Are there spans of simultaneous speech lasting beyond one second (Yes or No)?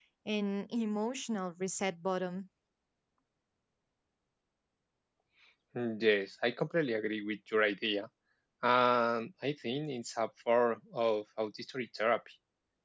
No